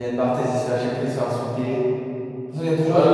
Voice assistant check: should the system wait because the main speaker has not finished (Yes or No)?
No